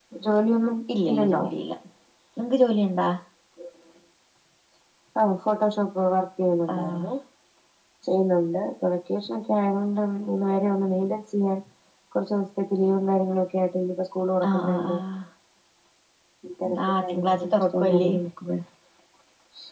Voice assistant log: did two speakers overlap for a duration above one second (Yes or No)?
Yes